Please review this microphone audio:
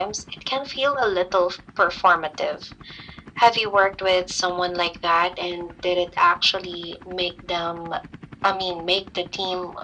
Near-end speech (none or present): none